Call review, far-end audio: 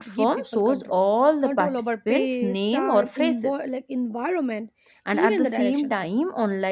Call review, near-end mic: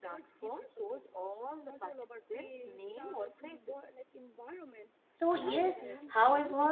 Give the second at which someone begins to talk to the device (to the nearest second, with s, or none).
5 s